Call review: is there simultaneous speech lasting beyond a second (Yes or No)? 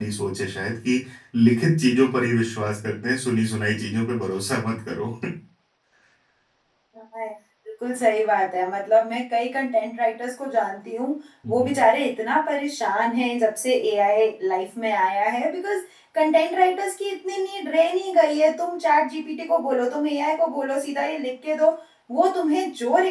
No